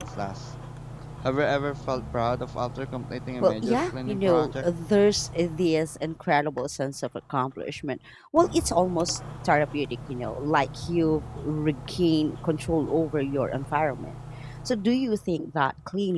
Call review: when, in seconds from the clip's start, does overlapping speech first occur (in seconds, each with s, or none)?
3.4 s